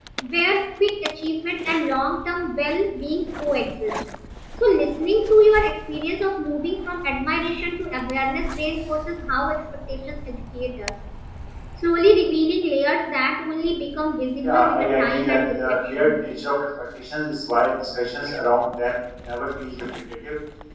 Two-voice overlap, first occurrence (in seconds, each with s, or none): 14.4 s